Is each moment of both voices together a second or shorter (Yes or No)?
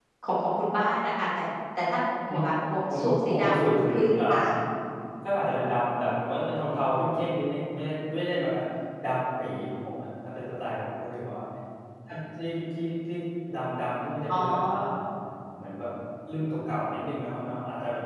No